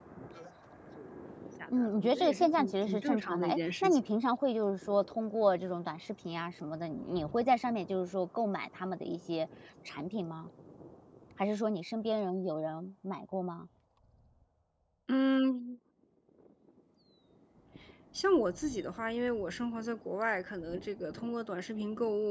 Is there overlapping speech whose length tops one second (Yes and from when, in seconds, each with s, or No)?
Yes, from 1.8 s